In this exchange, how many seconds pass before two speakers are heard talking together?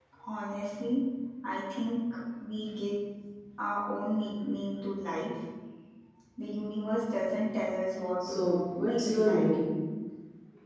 8 s

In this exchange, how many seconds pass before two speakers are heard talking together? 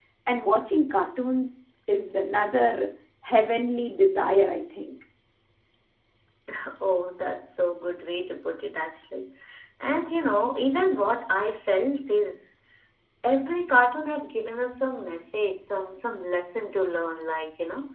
none

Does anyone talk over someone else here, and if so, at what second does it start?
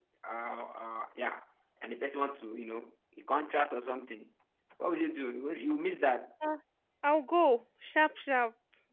none

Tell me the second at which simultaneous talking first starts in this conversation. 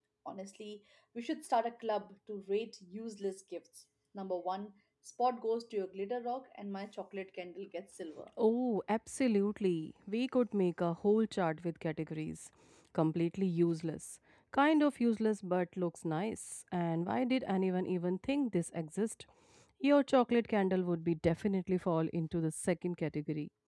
none

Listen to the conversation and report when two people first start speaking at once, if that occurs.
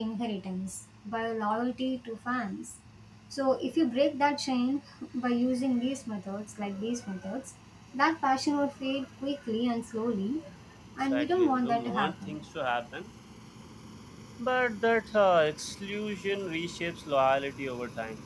11 s

